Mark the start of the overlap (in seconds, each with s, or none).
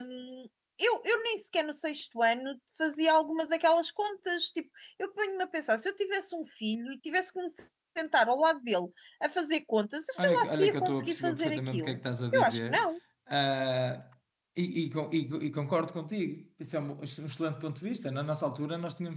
10.2 s